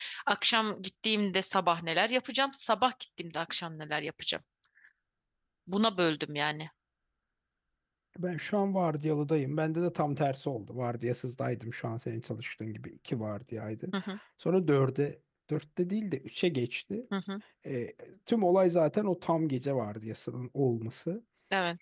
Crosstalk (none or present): none